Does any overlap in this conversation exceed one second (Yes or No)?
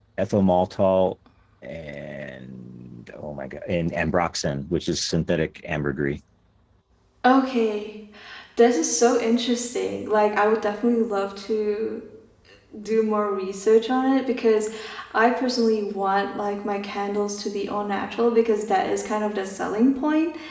No